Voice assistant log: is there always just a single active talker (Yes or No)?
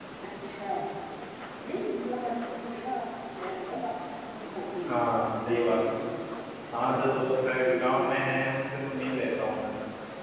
No